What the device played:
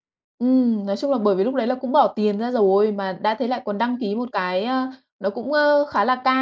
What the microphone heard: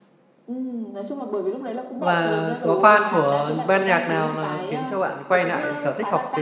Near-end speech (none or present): present